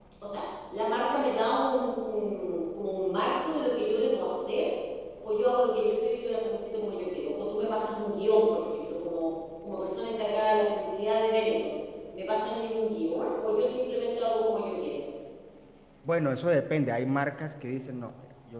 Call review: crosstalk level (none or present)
none